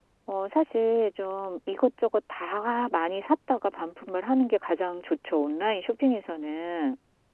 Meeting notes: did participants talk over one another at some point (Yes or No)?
No